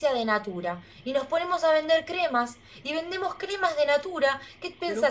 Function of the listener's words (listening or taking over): listening